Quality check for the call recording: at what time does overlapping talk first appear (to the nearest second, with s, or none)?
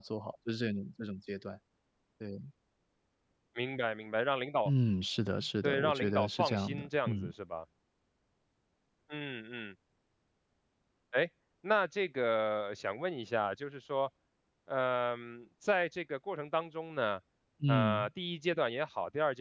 6 s